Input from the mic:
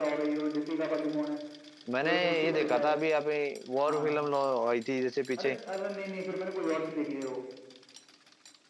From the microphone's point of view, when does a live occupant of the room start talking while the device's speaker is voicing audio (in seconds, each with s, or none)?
1.9 s